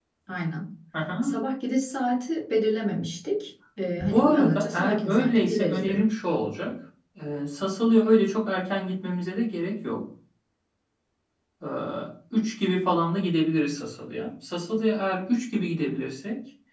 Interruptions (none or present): present